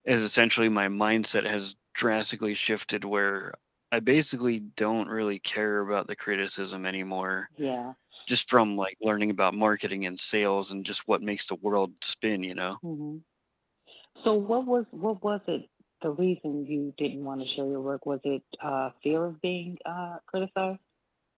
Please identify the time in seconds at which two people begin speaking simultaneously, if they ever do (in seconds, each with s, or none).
none